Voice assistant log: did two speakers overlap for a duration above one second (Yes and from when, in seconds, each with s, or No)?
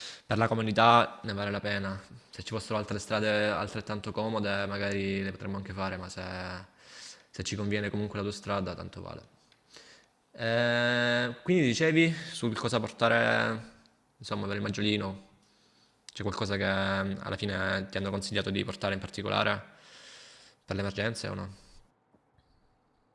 No